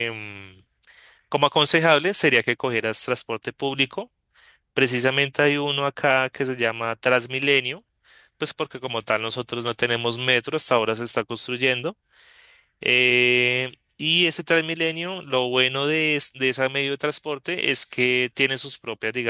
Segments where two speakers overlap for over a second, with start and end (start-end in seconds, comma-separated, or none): none